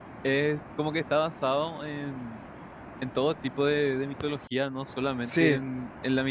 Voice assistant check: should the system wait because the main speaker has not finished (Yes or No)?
Yes